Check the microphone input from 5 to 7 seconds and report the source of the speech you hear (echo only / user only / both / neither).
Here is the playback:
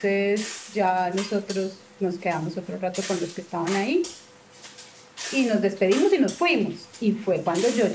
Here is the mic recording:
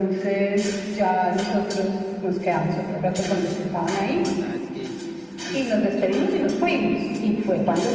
both